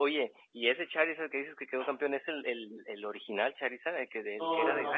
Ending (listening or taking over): taking over